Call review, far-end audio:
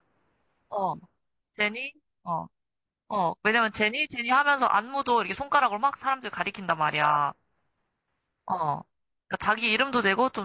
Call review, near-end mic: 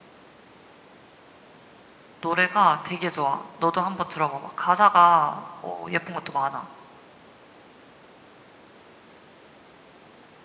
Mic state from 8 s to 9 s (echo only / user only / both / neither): neither